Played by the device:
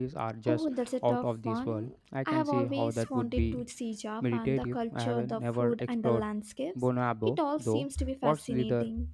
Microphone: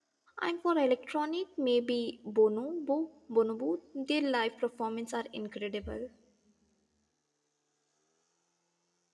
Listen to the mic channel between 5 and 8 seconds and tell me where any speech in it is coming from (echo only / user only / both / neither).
user only